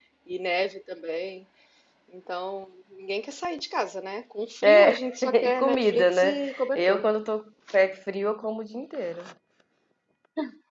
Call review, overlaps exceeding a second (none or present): present